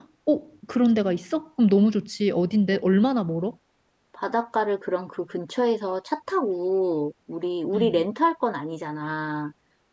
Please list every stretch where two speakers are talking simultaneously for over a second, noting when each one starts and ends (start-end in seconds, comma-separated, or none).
none